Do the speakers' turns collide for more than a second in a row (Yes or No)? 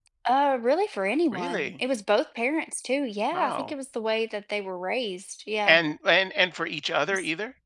No